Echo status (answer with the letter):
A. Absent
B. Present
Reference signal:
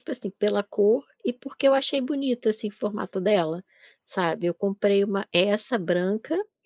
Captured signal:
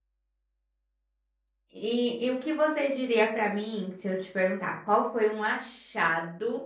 A